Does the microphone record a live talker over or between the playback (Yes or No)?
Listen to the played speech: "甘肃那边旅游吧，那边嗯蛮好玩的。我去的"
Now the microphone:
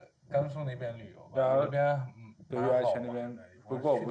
Yes